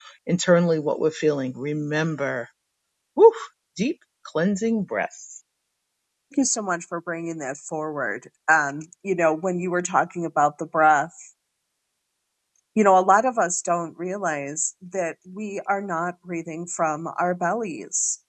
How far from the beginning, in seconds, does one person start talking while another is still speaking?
none

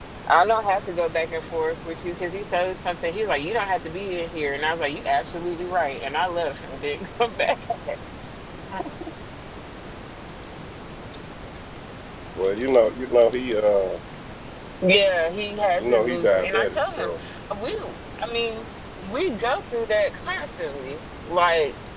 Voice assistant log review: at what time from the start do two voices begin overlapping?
15.8 s

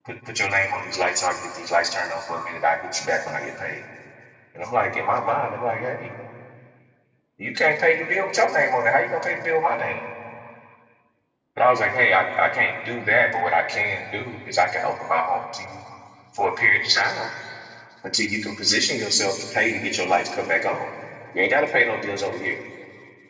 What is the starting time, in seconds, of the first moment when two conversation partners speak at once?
none

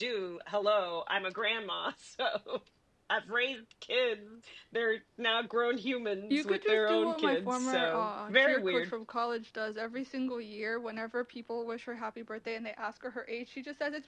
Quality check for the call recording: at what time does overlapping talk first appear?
6.3 s

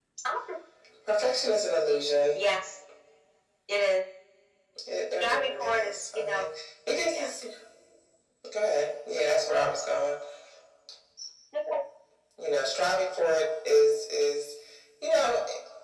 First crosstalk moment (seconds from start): 5.2 s

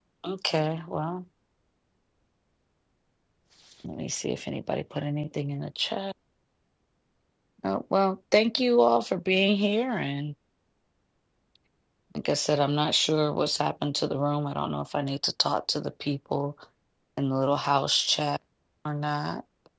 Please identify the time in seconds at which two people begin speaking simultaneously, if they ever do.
none

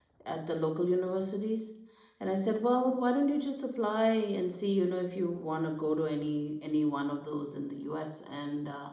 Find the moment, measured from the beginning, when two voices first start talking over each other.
none

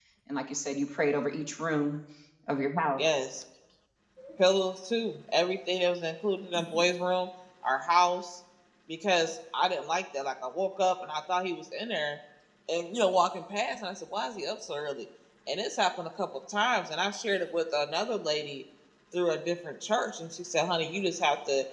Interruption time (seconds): none

